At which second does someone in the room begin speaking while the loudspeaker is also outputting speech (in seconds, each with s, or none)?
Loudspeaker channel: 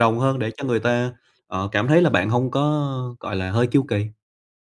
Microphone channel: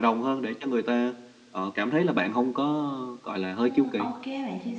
3.6 s